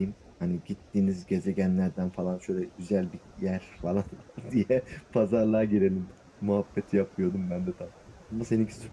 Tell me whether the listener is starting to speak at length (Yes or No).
Yes